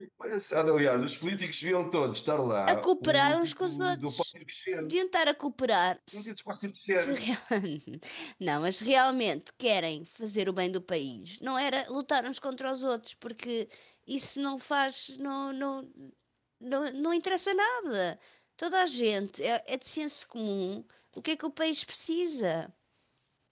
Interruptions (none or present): present